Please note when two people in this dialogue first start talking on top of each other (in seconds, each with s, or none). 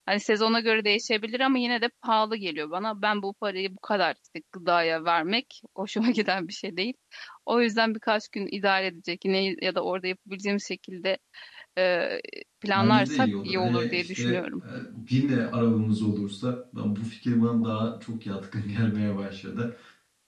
12.7 s